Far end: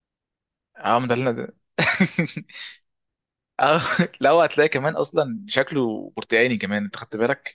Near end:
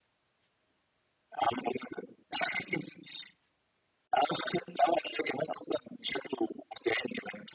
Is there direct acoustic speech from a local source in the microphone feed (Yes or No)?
No